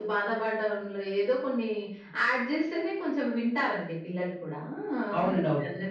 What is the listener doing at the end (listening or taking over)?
taking over